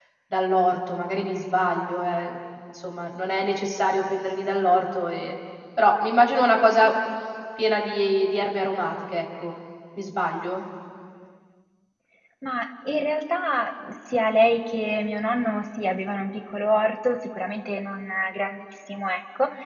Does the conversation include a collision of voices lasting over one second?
No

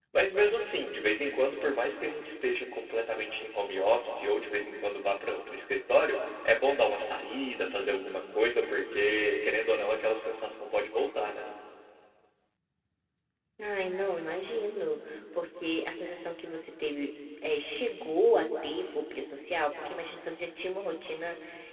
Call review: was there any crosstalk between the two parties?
No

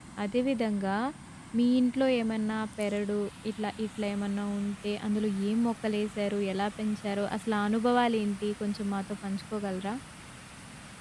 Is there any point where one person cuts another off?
No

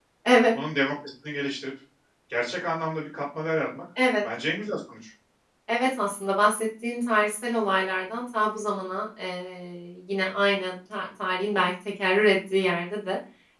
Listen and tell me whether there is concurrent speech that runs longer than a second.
No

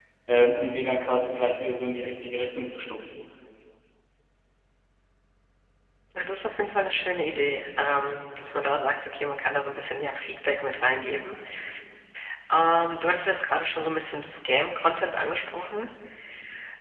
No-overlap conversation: Yes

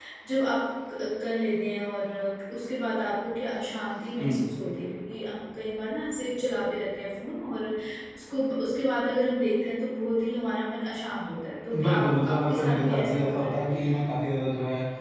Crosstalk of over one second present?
Yes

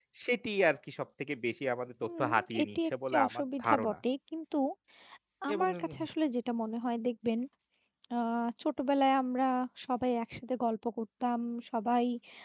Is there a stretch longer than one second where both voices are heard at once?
Yes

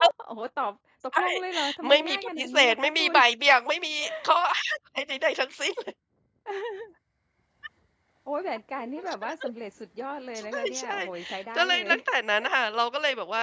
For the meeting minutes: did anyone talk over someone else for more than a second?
Yes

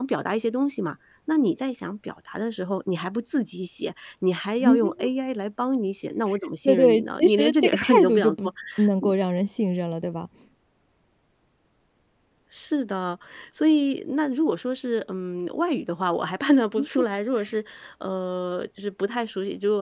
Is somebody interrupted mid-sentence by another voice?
Yes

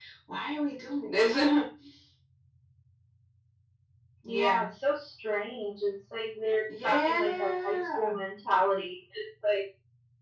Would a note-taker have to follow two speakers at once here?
Yes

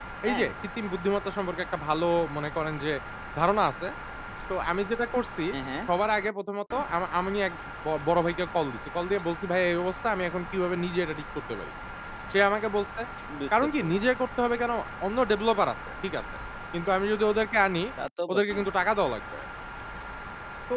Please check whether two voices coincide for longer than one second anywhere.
No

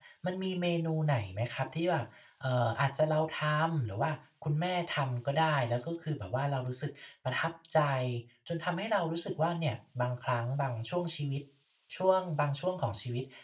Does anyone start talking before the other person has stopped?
No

